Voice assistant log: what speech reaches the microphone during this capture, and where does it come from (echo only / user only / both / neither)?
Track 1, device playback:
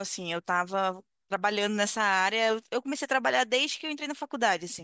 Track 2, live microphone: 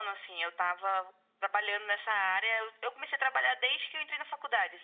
echo only